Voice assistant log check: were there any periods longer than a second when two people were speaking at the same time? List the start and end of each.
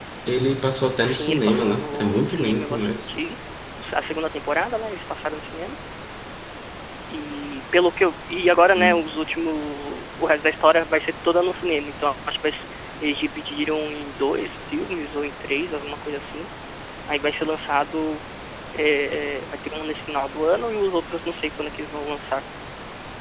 1.0-3.1

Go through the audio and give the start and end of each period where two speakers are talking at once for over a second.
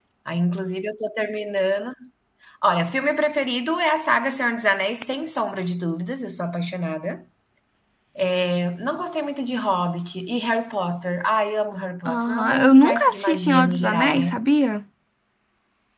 12.1-14.4

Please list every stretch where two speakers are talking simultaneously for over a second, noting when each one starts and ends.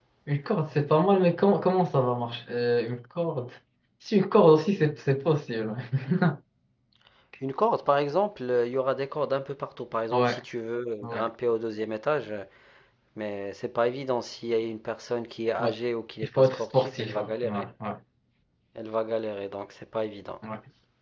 16.4-17.7

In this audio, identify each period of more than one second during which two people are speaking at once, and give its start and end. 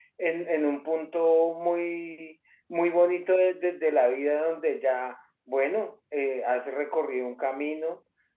none

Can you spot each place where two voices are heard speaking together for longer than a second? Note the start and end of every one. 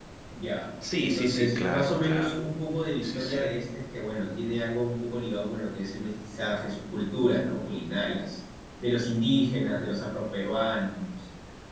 1.0-2.4

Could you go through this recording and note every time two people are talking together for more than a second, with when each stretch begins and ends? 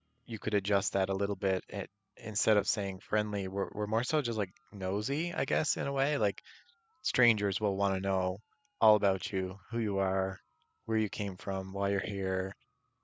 none

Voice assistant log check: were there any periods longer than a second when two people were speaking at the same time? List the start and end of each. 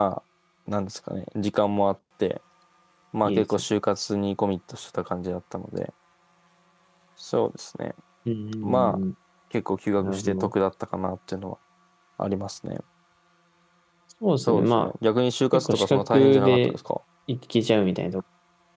15.5-16.8

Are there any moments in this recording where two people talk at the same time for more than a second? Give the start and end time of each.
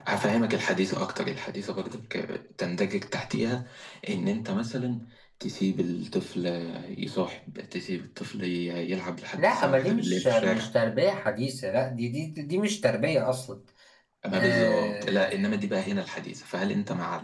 9.4-10.7, 14.3-15.6

